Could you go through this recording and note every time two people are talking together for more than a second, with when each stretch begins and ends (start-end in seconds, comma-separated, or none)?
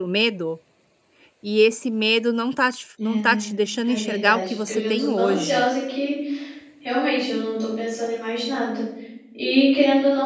3.9-5.7